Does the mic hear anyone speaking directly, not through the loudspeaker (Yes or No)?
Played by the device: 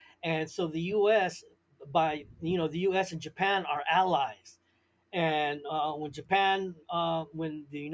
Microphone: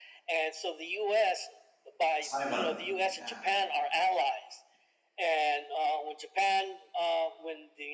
Yes